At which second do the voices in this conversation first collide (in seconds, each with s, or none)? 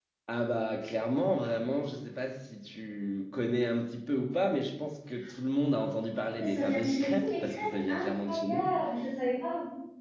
6.4 s